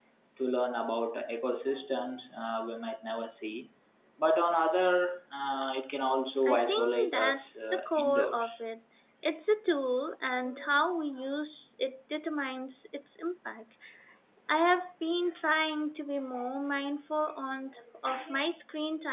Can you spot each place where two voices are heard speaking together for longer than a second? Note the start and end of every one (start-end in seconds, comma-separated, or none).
6.5-8.5